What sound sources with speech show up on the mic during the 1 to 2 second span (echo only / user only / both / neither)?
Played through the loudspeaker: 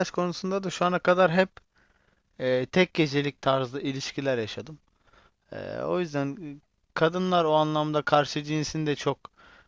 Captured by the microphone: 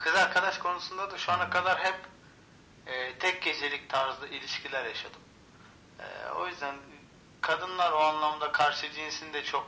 both